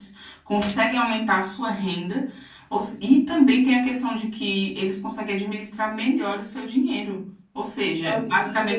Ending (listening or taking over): listening